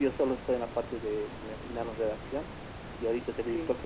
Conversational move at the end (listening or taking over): listening